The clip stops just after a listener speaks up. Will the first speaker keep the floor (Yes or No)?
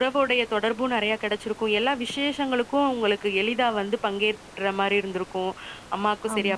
Yes